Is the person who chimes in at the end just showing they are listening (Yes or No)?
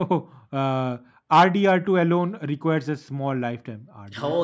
No